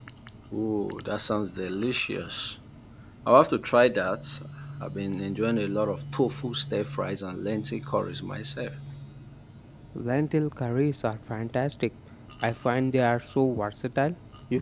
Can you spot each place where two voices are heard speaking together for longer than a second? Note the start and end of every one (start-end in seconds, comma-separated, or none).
none